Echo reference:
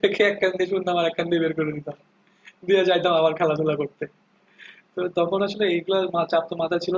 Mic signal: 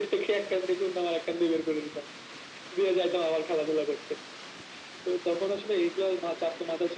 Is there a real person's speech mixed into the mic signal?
No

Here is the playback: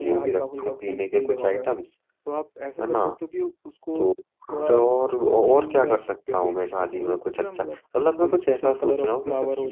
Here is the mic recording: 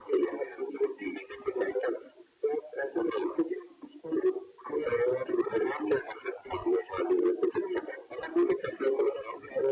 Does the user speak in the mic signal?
No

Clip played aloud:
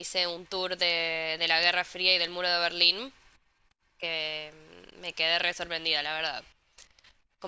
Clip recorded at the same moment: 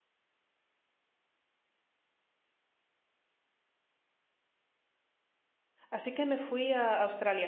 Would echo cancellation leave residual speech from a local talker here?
Yes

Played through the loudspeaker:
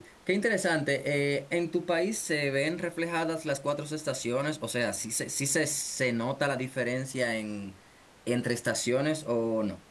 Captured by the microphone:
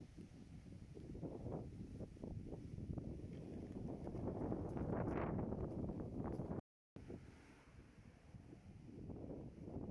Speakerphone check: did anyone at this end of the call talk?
No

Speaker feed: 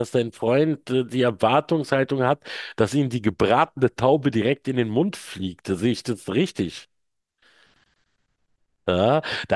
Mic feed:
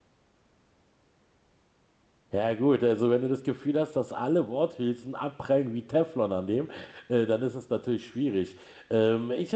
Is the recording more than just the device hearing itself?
Yes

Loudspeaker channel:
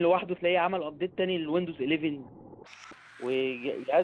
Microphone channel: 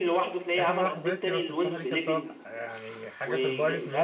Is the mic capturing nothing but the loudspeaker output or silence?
No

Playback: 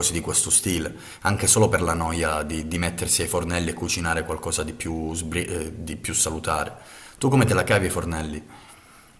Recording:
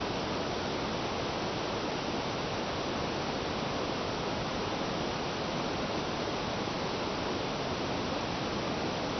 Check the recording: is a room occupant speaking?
No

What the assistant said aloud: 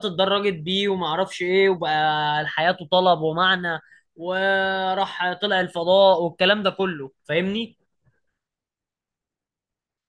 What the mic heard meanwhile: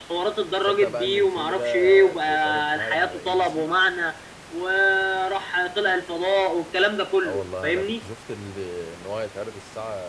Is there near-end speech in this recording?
Yes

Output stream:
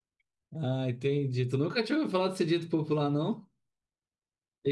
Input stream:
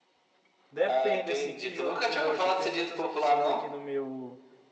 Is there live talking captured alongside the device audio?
Yes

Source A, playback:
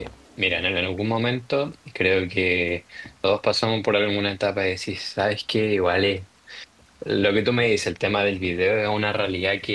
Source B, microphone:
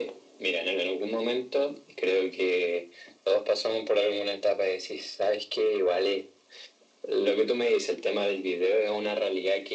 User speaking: No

